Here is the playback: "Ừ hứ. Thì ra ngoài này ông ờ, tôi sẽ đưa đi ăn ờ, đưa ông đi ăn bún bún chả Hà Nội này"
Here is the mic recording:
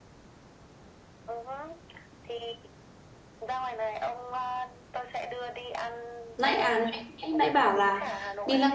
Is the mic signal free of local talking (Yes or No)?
No